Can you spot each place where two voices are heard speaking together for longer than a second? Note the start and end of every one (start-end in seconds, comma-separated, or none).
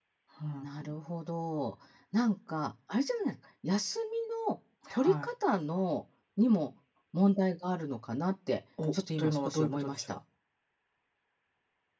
8.9-10.2